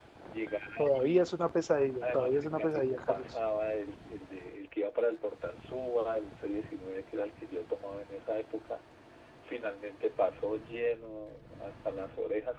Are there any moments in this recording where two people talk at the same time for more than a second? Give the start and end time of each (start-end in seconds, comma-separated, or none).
2.0-3.2